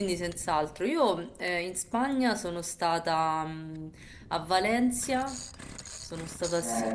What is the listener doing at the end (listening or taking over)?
taking over